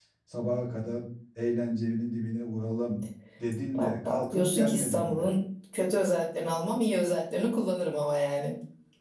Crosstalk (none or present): present